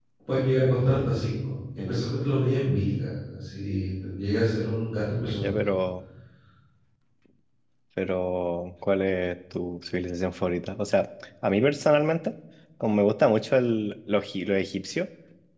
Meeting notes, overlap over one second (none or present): none